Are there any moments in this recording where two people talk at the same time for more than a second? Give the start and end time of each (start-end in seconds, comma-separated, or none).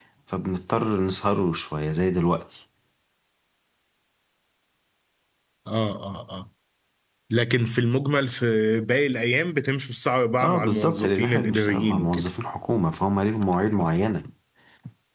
10.4-12.3